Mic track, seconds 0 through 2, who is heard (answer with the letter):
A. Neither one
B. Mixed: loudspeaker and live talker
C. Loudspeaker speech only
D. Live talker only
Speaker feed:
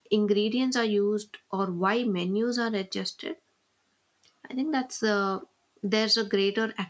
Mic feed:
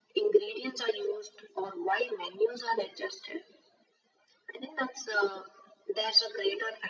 C